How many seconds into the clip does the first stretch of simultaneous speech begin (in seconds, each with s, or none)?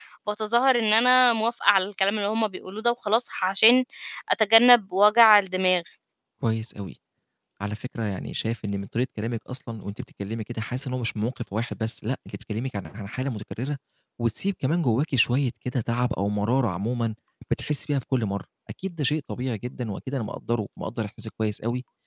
none